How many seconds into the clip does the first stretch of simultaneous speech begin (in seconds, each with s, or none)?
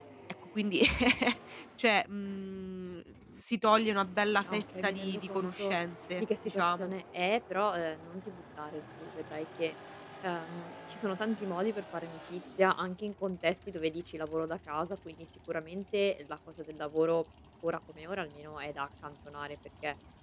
4.4 s